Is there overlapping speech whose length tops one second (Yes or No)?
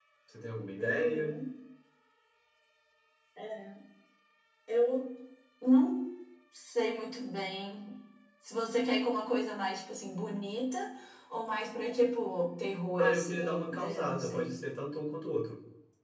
Yes